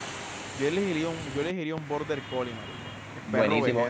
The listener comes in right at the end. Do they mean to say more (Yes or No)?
Yes